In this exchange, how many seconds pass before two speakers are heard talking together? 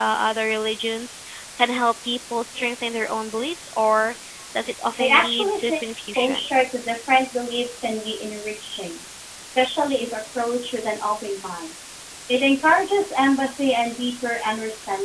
5.0 s

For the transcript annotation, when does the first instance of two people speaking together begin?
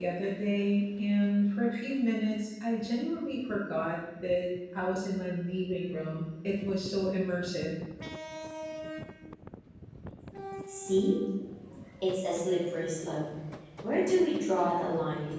none

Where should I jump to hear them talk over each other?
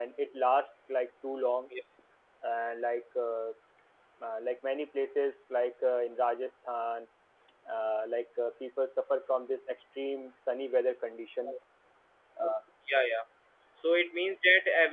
none

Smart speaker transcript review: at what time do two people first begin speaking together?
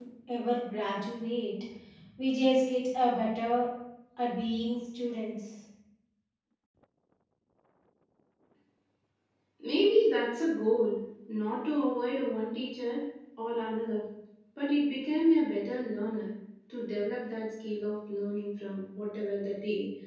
none

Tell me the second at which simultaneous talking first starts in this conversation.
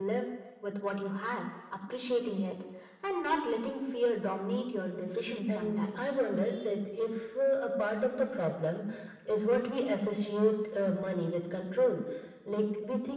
4.9 s

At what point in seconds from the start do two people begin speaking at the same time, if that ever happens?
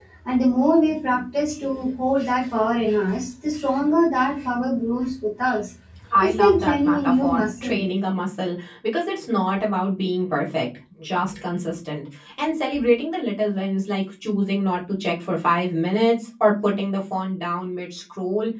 6.2 s

